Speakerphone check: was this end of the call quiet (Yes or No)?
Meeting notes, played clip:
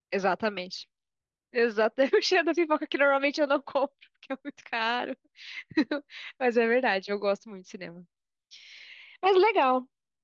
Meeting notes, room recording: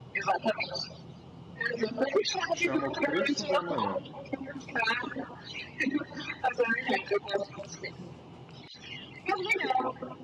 No